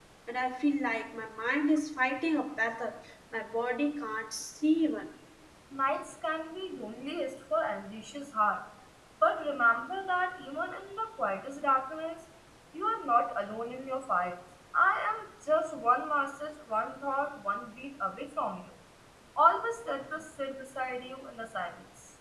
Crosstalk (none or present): none